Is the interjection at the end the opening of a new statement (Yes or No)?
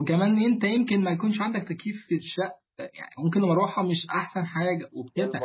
Yes